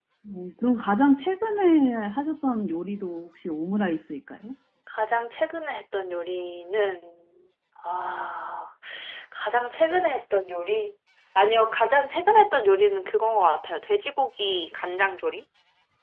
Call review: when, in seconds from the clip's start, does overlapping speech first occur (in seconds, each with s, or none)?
none